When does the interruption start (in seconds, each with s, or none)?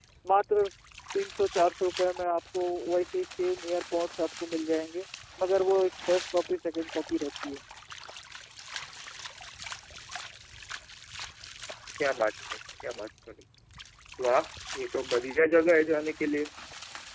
none